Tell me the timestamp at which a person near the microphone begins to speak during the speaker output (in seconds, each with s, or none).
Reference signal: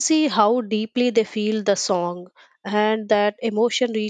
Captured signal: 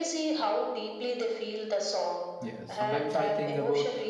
2.4 s